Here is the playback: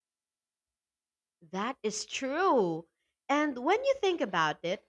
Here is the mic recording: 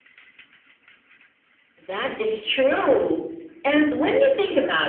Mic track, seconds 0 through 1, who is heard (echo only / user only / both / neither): neither